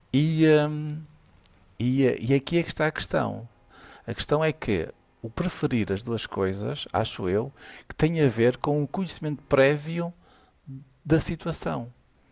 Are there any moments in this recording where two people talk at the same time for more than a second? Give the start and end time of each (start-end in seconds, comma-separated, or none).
none